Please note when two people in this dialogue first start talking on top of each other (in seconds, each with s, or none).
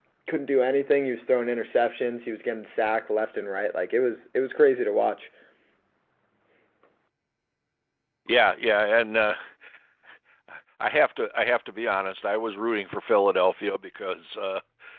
none